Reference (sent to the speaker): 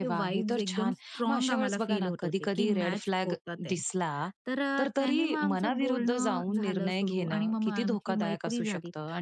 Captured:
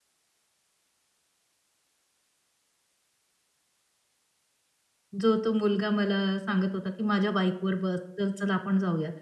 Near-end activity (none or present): present